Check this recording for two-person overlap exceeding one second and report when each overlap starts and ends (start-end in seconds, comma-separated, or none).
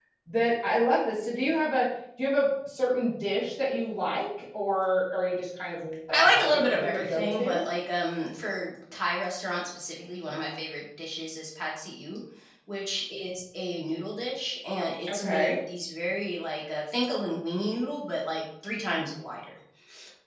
6.2-7.6